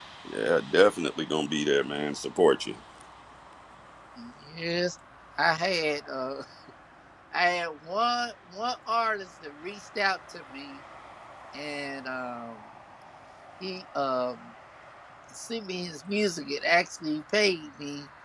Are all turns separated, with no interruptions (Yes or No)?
Yes